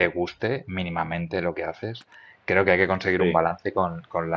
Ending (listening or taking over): listening